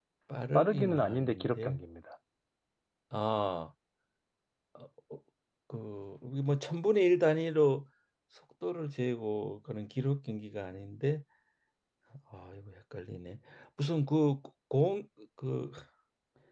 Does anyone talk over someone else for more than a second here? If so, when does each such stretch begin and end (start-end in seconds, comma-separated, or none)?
0.5-1.8